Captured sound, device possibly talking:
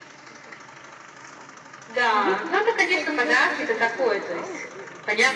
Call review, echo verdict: present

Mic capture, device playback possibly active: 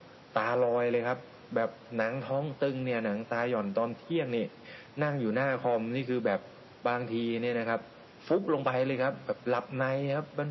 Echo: present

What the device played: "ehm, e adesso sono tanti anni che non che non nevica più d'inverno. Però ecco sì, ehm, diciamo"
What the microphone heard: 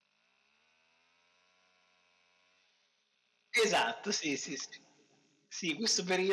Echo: none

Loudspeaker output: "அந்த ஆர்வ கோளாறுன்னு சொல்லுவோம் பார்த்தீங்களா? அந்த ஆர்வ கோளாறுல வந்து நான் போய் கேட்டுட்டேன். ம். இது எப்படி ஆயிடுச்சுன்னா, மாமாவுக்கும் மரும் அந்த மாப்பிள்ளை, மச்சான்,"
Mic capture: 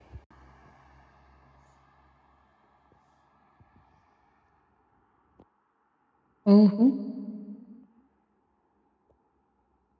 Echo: none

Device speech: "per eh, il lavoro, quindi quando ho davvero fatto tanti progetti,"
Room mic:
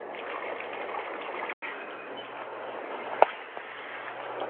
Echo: none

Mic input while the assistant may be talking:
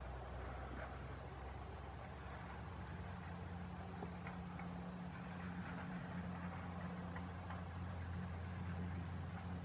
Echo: none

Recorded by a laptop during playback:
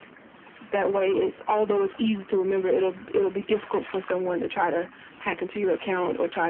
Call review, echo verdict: present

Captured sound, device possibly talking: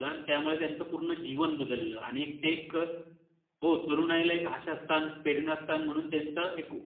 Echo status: none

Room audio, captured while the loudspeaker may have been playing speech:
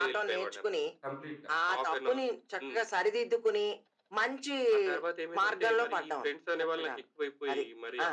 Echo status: present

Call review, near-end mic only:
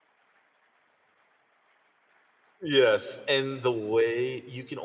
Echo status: none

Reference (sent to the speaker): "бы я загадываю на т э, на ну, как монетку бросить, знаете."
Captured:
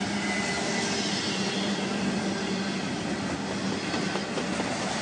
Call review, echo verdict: none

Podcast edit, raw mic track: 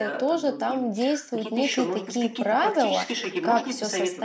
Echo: present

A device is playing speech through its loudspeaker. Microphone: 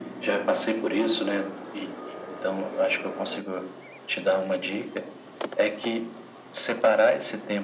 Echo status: present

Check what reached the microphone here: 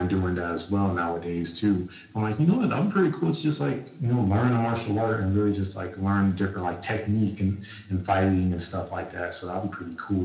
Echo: present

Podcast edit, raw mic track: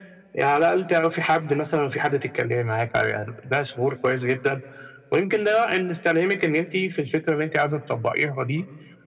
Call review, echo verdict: present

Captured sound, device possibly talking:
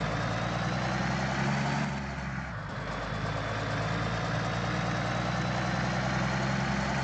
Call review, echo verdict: none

